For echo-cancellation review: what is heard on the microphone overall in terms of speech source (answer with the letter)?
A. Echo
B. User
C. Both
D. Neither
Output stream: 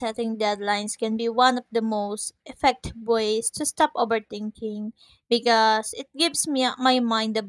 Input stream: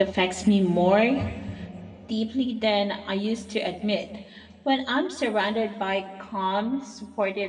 B